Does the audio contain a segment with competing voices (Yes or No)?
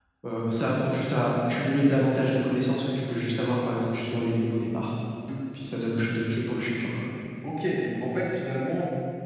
No